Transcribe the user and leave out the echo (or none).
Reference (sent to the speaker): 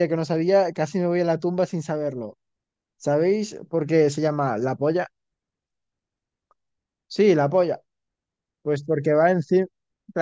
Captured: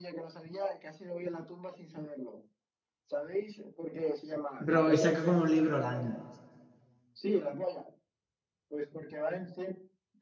Bro, y saca como un libro al año.